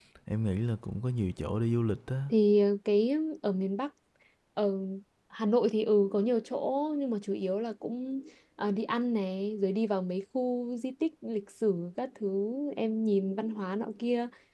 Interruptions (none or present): none